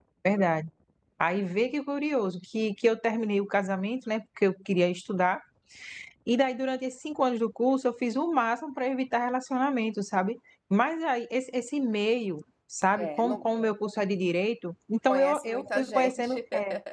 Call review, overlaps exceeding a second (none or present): present